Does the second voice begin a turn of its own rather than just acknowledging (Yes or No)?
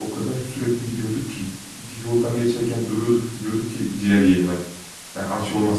No